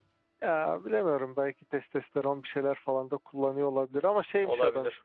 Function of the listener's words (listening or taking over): listening